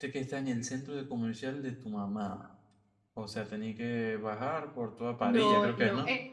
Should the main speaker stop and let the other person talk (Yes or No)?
Yes